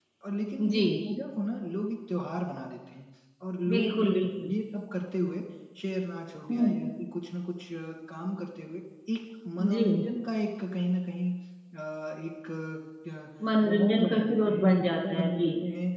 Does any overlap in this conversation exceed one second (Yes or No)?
Yes